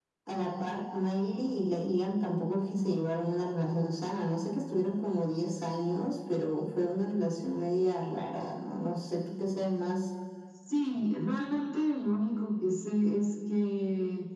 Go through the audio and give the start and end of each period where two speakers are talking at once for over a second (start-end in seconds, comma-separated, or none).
none